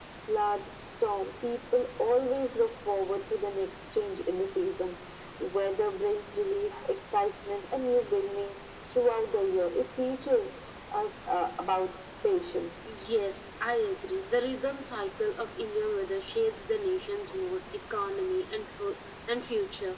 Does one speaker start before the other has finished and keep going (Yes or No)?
No